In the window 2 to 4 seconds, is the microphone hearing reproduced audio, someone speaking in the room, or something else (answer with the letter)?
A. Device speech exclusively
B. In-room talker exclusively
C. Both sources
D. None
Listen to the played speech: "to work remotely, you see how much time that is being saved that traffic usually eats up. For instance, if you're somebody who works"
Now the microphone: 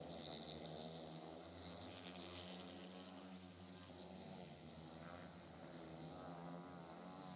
D